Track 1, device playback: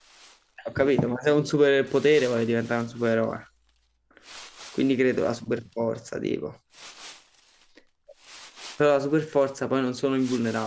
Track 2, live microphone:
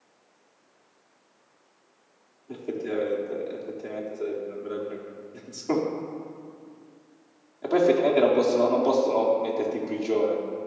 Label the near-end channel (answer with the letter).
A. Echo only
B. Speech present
B